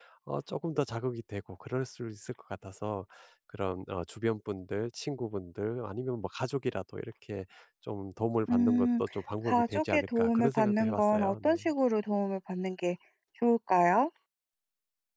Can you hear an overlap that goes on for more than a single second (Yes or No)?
Yes